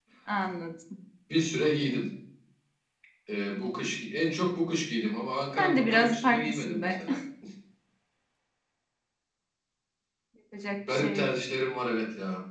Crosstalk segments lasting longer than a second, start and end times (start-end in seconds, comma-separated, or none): 5.6-6.9